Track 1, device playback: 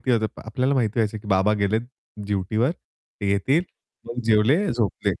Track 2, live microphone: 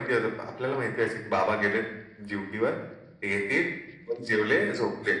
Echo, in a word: present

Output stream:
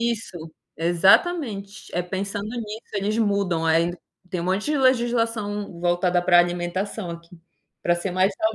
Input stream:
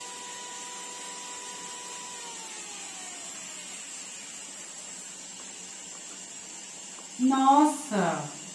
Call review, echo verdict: none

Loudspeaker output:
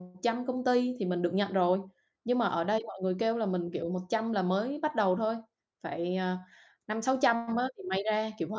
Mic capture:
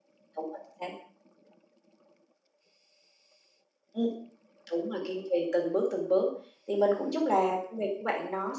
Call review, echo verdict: none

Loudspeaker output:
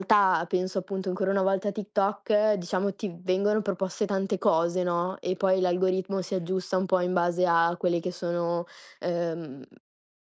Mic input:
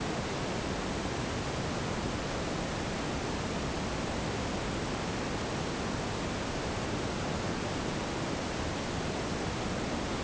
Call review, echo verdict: none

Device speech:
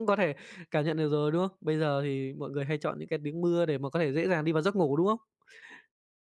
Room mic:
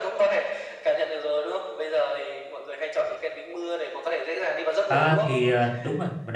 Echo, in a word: present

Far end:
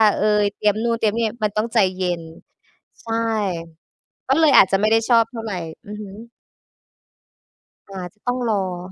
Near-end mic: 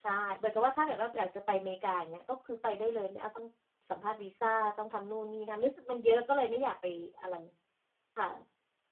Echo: none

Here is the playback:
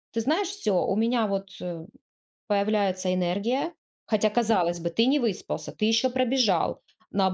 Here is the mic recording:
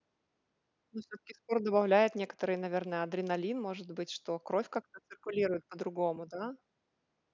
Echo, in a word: none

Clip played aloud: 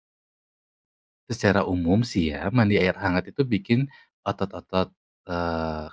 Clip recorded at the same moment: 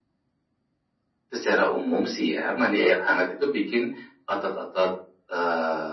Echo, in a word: present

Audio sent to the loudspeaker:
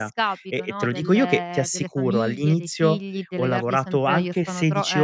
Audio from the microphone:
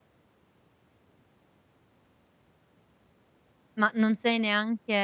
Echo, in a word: none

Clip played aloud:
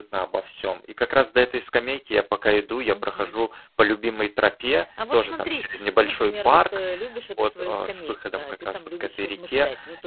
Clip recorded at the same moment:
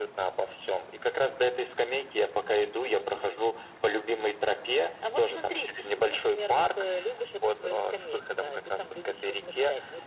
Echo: present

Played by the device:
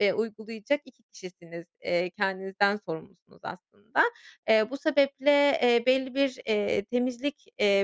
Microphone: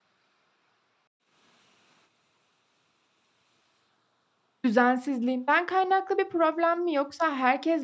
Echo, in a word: none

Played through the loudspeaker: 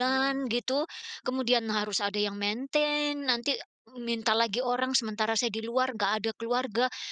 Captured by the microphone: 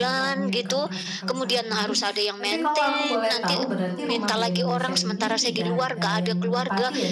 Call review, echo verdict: present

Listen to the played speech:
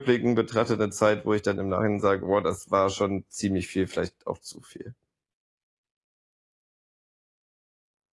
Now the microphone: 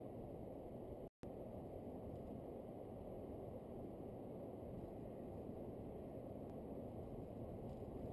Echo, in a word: none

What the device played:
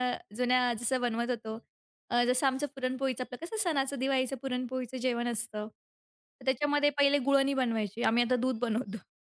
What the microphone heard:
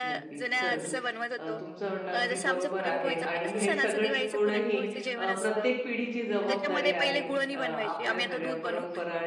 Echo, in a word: present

